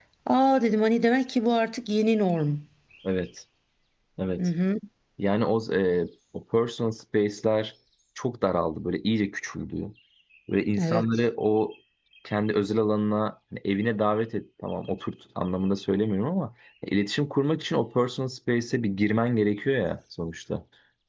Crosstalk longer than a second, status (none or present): none